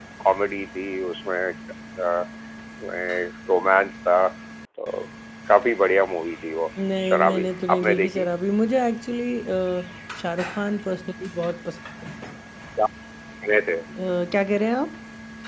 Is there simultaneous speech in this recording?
Yes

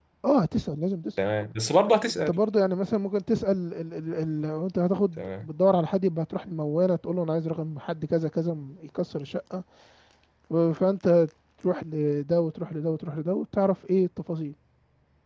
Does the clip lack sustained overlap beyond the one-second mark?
Yes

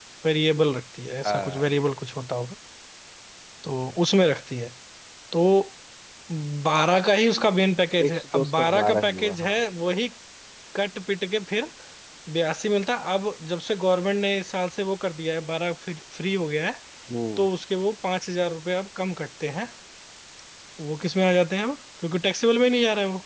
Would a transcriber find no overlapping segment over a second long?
No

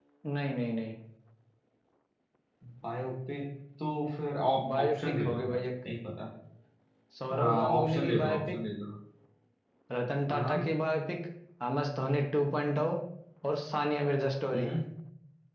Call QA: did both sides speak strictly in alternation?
No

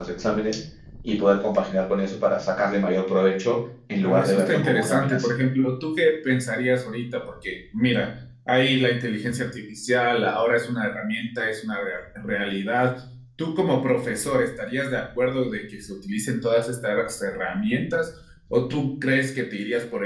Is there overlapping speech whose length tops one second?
Yes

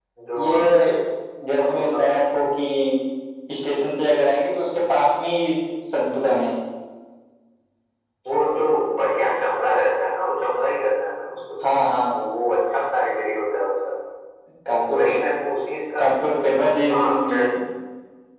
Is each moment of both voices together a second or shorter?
Yes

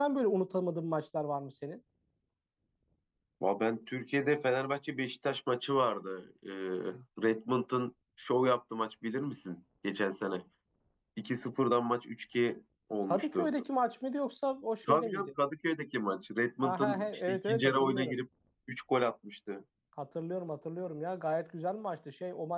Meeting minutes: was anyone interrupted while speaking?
Yes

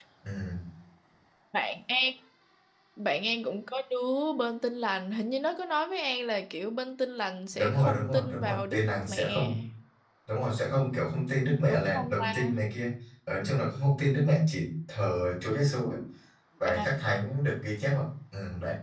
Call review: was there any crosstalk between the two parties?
Yes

